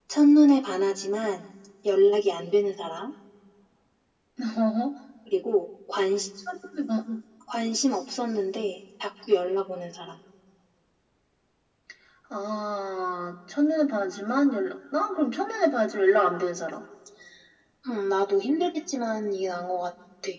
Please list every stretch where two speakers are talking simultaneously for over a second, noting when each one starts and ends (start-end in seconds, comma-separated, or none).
none